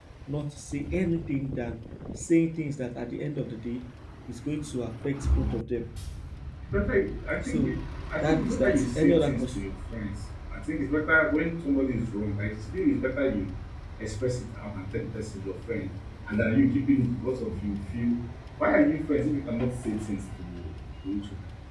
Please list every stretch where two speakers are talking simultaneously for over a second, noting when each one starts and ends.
8.2-9.6

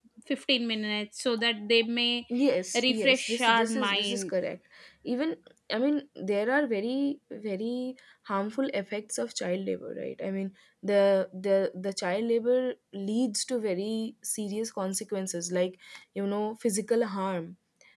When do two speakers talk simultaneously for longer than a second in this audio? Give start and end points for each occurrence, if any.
2.8-4.3

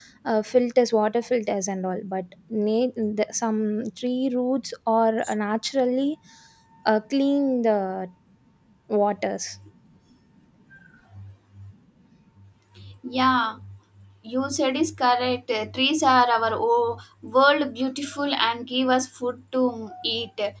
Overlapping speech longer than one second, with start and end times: none

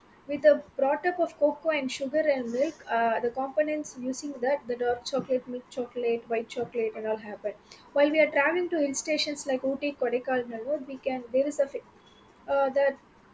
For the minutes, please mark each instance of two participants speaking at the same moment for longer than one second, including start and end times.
none

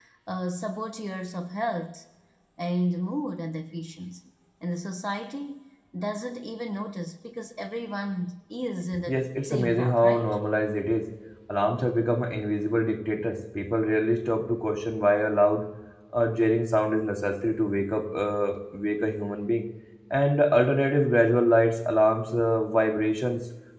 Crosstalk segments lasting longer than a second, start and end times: 9.1-10.4

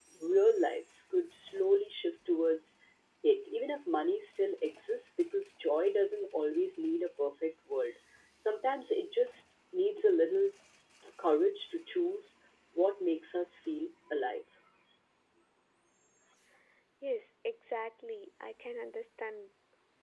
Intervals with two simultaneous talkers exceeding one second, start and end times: none

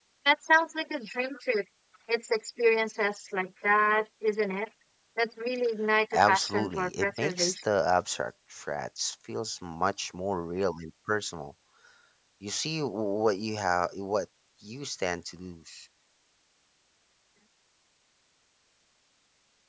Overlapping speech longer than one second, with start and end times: 6.1-7.5

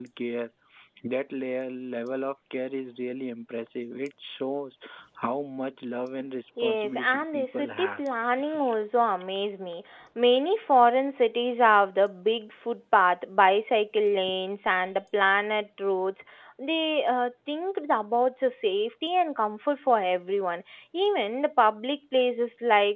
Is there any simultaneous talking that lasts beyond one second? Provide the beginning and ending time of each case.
6.6-8.0

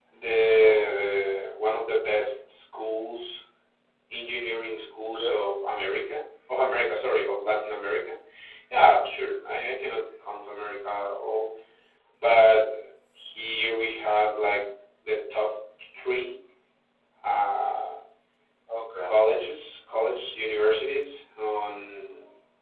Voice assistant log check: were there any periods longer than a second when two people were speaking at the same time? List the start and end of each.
none

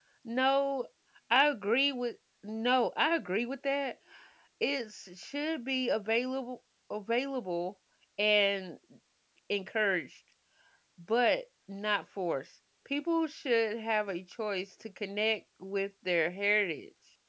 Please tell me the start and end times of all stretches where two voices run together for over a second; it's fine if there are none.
none

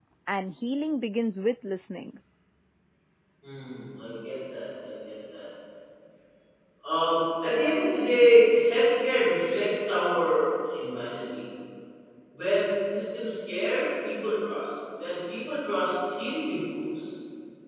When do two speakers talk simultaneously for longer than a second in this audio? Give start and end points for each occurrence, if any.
none

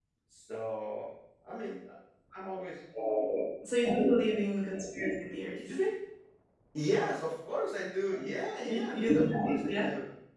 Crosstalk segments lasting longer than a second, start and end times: 8.7-9.8

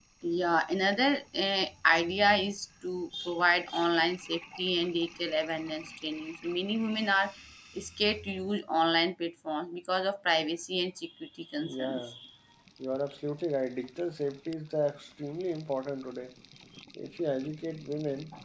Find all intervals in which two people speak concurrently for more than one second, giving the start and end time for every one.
none

